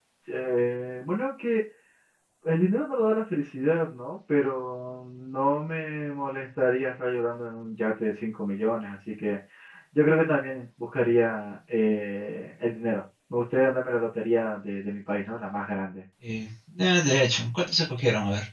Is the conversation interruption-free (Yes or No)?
Yes